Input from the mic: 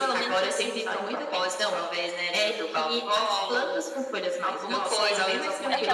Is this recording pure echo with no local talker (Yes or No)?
No